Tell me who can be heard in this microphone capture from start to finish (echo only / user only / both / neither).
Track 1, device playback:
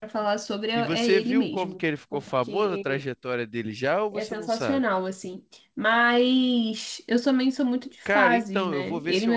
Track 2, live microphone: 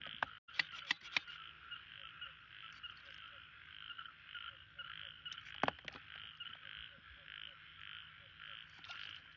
neither